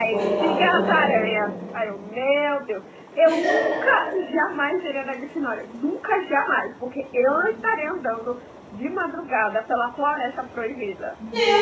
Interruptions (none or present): present